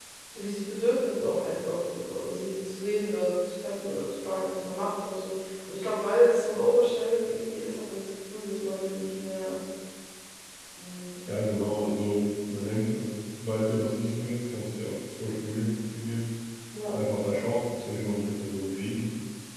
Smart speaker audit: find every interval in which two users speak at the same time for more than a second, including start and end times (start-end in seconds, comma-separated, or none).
none